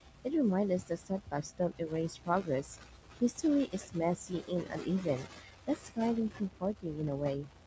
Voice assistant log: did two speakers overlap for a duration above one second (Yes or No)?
No